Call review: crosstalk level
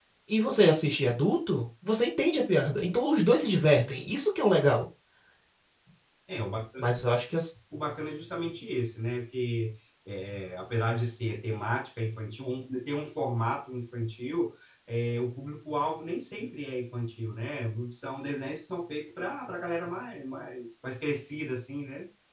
none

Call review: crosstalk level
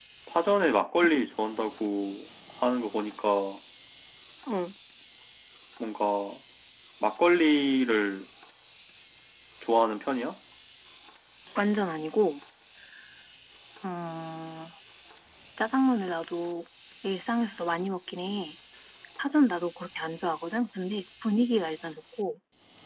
none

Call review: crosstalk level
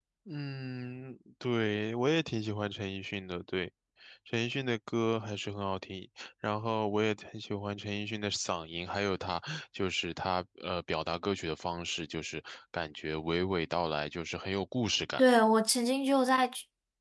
none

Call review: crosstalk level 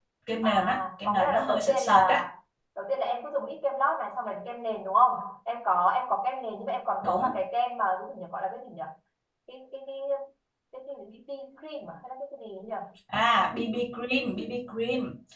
present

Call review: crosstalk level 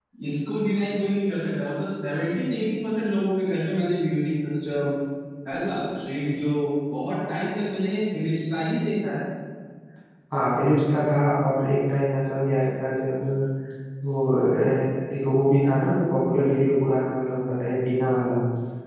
none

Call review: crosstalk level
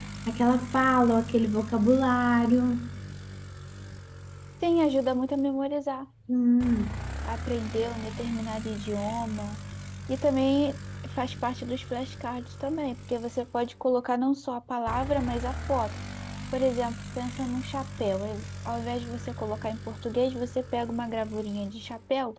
none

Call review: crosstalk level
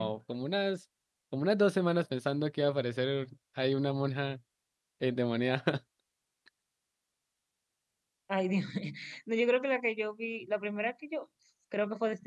none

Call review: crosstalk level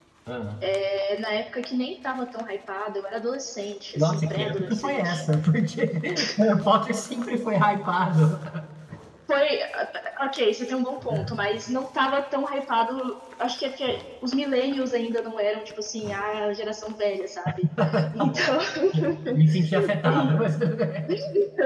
present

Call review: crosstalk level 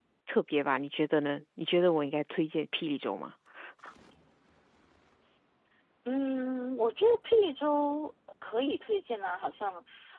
none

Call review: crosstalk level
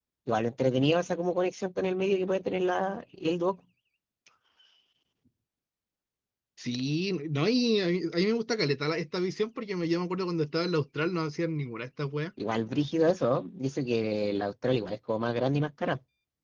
none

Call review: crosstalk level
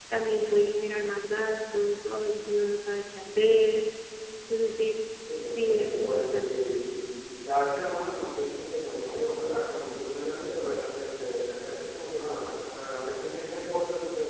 present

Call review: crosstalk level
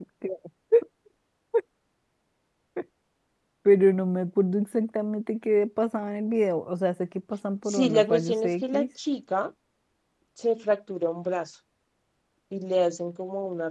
present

